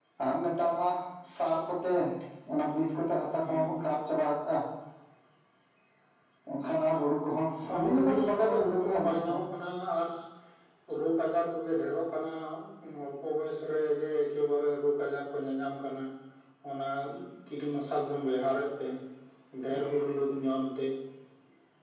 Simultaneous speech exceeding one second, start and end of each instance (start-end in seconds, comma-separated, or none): 7.7-9.4